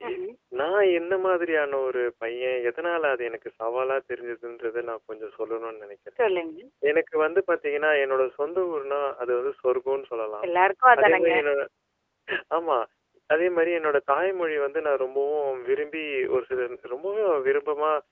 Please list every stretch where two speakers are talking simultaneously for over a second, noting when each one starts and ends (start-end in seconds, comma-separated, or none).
none